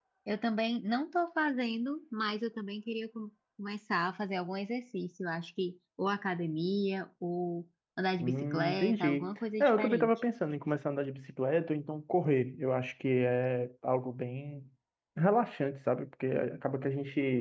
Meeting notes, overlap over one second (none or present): present